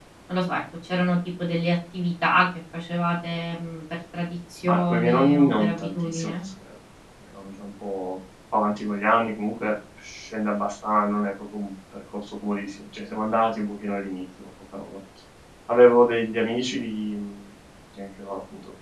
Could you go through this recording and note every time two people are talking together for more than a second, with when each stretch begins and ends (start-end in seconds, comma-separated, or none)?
4.6-6.3